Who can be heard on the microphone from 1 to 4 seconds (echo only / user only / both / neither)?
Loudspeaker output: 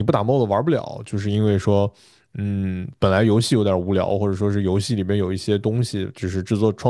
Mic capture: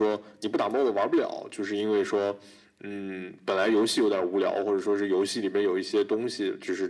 echo only